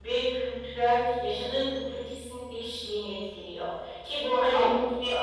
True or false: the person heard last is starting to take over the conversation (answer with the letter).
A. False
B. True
A